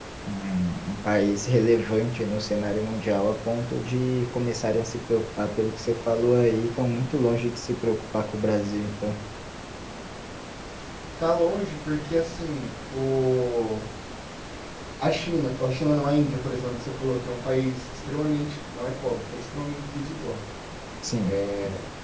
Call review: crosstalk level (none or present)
none